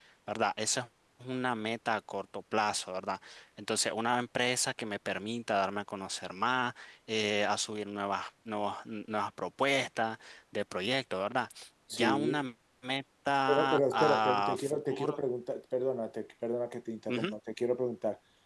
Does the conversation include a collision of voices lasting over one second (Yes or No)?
Yes